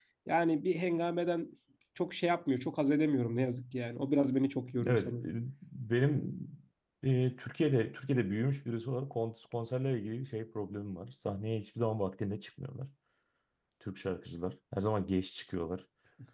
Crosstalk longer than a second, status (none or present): none